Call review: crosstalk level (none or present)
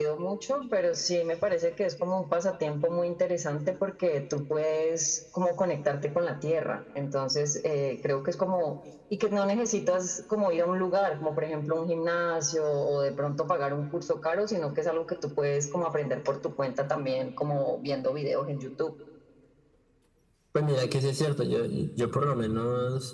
none